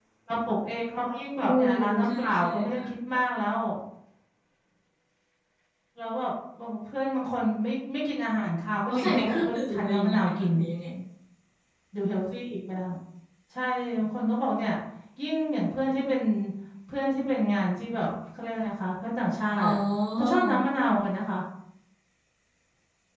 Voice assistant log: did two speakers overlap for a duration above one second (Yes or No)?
Yes